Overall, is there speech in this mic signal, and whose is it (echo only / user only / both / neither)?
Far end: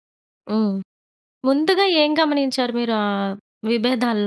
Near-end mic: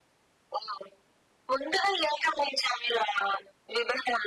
echo only